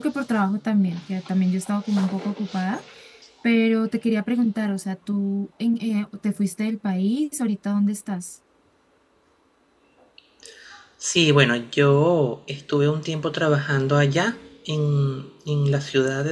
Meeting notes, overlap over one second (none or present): none